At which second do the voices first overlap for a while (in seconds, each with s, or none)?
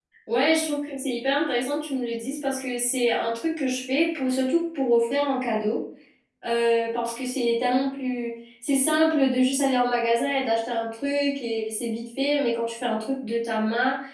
none